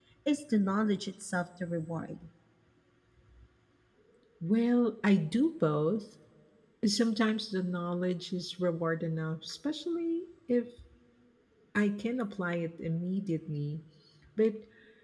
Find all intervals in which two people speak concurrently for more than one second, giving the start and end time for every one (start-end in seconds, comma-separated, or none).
none